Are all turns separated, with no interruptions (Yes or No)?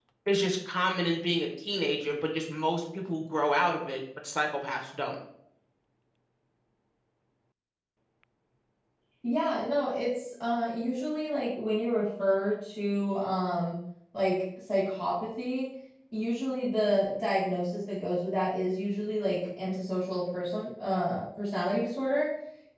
Yes